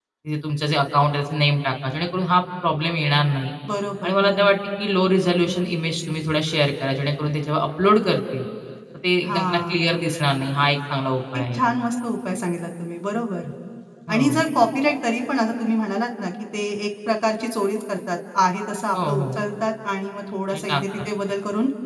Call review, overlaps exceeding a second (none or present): none